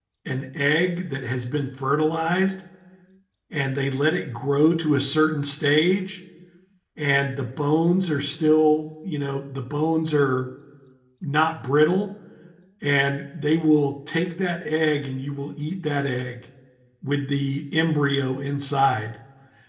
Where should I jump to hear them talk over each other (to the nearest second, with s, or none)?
none